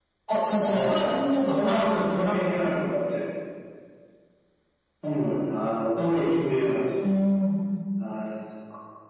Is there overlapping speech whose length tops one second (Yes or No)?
Yes